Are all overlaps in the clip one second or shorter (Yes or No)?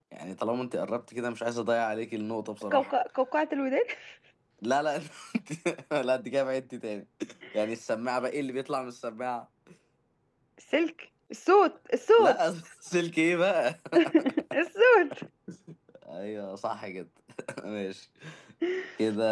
Yes